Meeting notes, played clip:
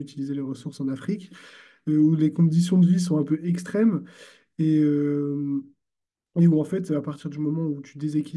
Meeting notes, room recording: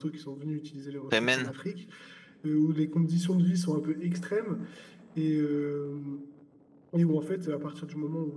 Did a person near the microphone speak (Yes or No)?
Yes